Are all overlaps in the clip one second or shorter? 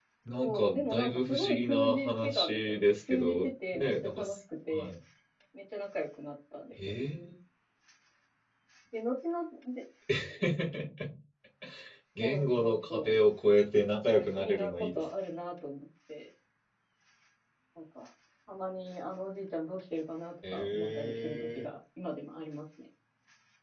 No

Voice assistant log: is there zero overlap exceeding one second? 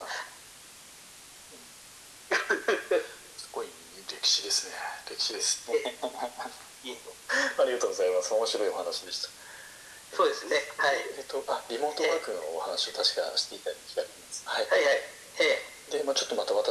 Yes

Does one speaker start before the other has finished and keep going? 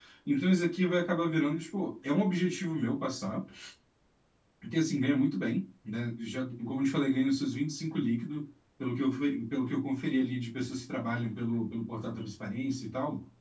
No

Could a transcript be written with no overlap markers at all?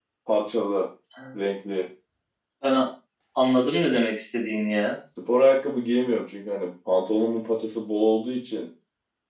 Yes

